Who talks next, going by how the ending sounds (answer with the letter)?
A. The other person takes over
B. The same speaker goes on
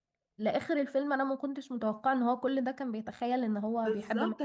A